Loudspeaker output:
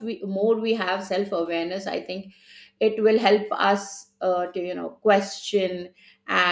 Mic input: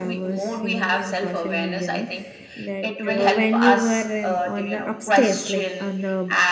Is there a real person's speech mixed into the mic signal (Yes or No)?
Yes